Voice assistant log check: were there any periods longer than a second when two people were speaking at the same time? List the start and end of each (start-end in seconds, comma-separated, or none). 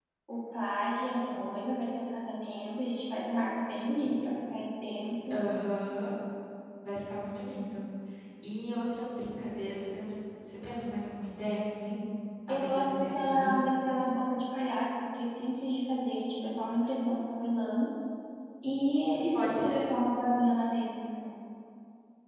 12.5-13.7